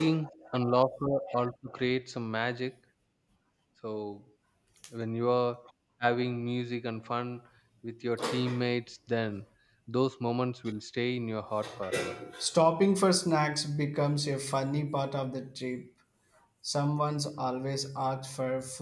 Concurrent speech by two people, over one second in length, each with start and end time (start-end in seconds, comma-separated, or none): none